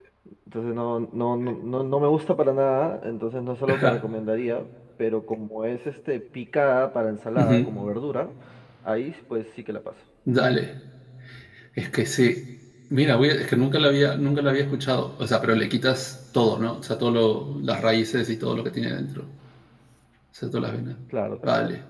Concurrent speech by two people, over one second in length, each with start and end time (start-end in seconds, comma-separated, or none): none